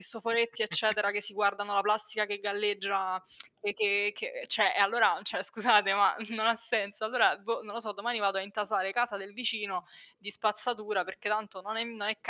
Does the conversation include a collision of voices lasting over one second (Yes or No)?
No